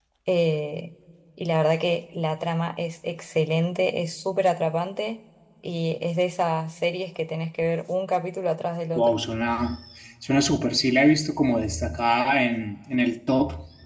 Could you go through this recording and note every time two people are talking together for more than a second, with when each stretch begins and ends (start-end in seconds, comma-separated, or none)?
none